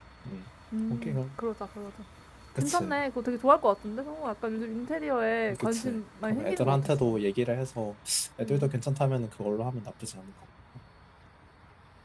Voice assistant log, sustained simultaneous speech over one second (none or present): present